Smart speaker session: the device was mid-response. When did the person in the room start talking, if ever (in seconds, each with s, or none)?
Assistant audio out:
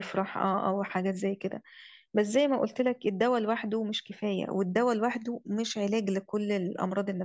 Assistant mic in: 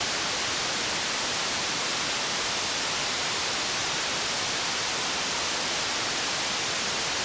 none